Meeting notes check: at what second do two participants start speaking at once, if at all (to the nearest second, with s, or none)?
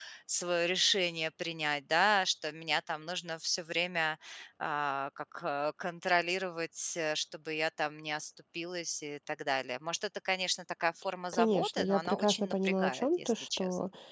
11 s